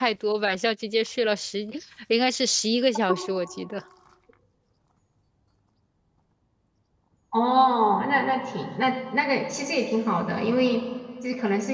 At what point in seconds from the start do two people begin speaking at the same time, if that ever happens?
none

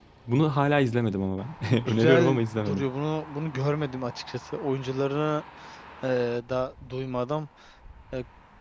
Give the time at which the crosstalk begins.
1.6 s

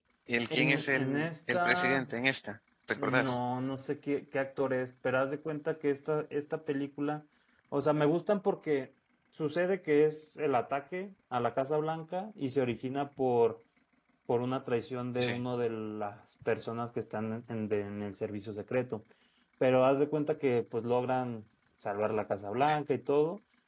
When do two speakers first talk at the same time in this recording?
0.5 s

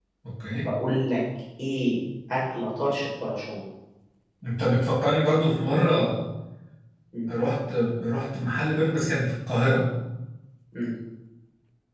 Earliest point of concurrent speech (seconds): none

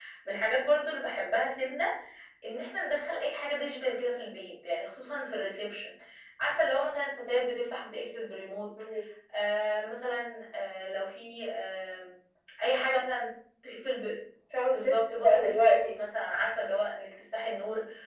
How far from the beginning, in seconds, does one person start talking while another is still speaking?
14.7 s

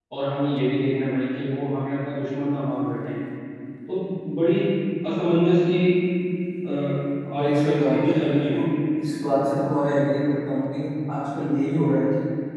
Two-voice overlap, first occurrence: 7.3 s

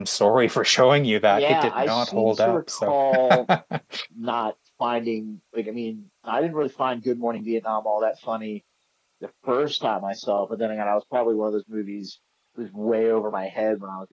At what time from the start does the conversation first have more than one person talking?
1.3 s

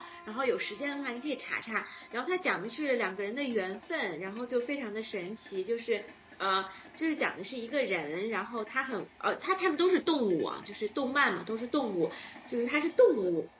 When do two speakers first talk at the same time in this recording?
none

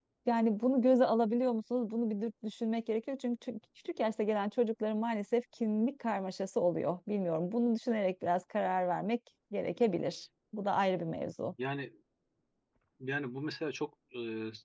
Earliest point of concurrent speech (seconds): none

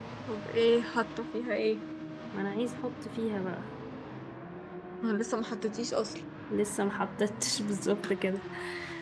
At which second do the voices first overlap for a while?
none

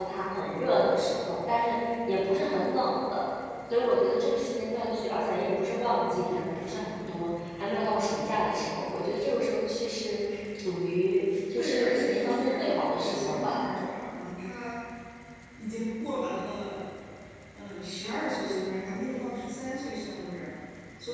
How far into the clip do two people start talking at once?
11.6 s

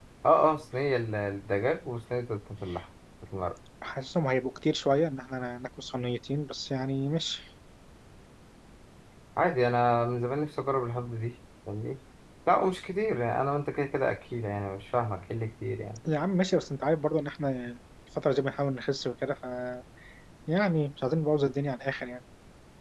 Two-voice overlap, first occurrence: none

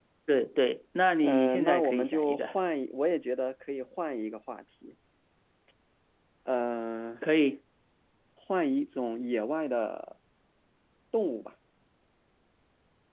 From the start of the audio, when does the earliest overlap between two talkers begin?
1.2 s

